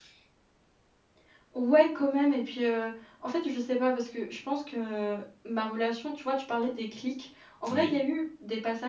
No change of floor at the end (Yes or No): Yes